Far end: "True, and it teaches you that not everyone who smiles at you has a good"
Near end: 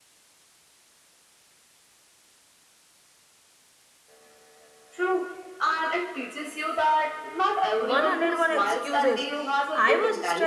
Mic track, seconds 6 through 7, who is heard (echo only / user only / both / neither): echo only